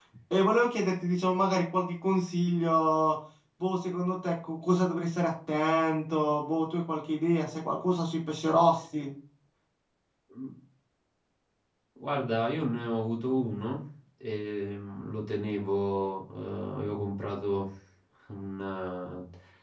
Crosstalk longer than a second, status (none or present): none